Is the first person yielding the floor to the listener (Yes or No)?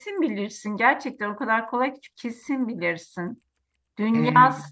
No